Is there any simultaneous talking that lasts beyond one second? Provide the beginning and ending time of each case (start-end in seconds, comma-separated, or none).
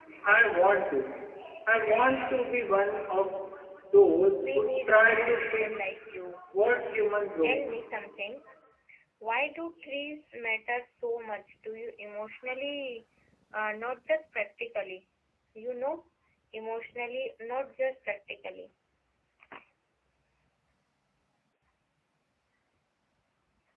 4.4-5.9